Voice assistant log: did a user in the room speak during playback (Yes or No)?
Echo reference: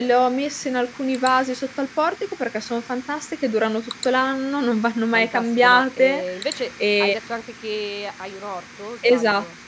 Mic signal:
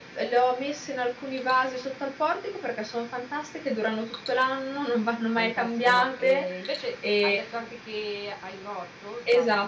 No